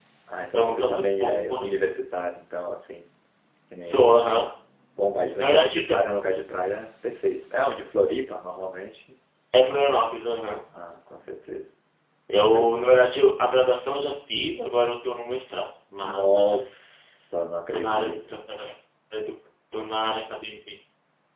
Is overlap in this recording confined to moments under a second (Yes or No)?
No